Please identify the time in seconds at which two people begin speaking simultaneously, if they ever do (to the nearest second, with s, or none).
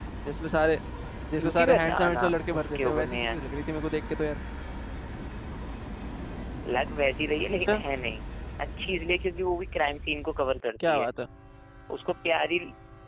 1 s